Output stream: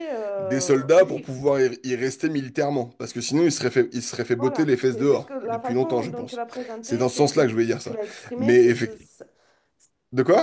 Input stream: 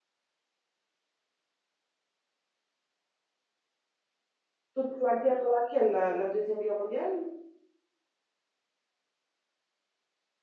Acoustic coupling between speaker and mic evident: No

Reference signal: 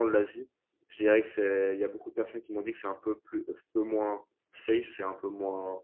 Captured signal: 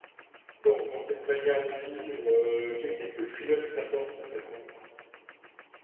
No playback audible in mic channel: Yes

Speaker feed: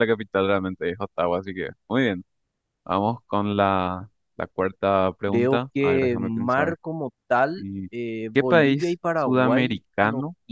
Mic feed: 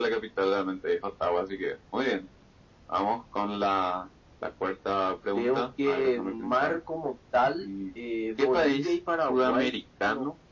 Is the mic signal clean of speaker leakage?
No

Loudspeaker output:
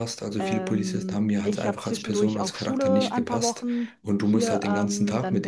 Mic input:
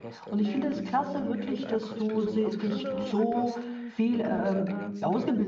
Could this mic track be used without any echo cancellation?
No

